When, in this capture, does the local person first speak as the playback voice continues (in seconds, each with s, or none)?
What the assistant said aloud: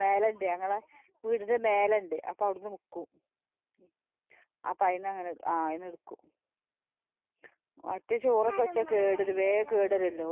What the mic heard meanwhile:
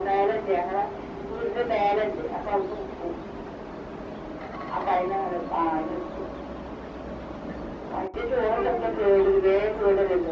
none